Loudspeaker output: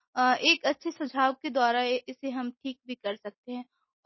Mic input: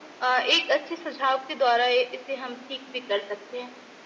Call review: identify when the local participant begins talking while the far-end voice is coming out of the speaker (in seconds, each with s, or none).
none